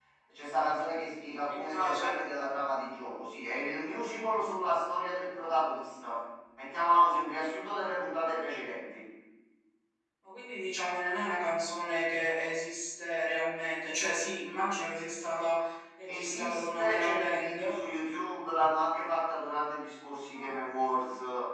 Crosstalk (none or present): present